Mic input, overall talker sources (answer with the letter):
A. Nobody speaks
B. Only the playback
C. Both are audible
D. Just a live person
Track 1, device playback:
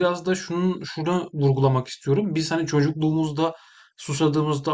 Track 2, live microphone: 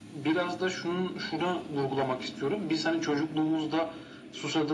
B